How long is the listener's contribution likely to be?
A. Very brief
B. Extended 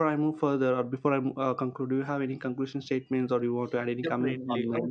B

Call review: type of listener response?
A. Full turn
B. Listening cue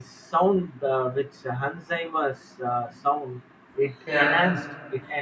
B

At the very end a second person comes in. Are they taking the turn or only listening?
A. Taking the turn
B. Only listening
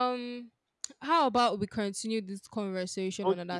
A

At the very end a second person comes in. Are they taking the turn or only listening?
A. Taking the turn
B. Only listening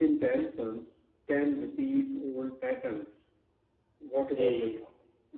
A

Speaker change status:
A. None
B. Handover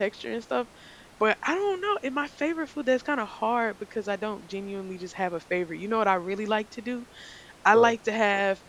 A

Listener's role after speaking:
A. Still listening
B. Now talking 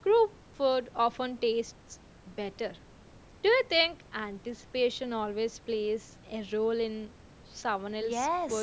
B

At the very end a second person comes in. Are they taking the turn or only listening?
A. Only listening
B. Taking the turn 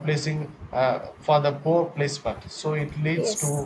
A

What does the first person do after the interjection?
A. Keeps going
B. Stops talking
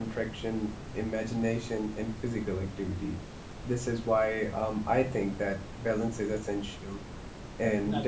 A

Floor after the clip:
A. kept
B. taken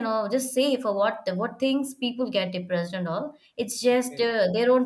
A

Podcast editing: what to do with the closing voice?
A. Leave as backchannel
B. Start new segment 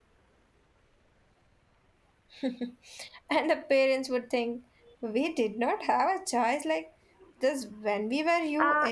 B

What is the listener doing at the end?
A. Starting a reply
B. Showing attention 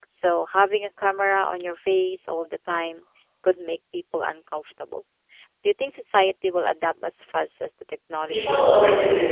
A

